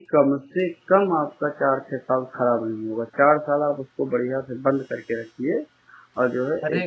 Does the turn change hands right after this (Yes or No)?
Yes